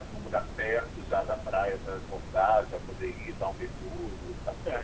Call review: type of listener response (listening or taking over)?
taking over